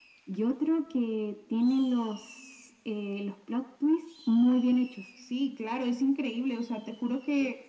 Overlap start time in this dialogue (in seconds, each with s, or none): none